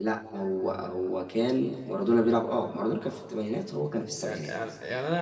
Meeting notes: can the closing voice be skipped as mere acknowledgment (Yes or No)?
No